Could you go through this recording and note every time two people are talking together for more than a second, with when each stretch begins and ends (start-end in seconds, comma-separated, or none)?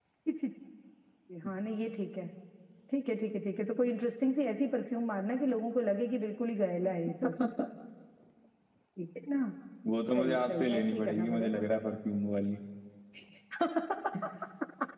10.2-11.6